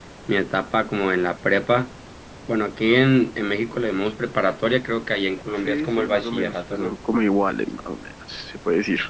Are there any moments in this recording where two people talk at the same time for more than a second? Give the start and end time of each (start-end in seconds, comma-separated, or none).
5.7-6.9